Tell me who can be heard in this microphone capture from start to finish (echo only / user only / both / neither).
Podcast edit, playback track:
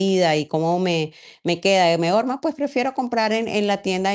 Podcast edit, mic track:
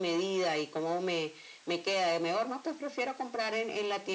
echo only